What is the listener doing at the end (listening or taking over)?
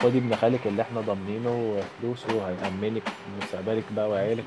taking over